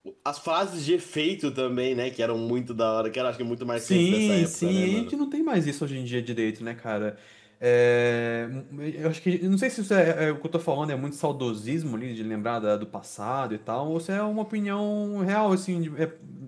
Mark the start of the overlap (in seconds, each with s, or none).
3.8 s